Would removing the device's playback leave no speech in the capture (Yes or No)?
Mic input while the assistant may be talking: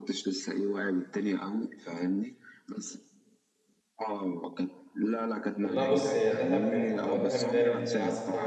No